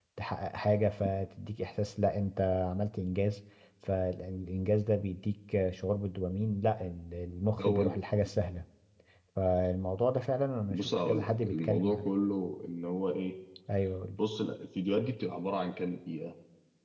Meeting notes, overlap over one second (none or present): present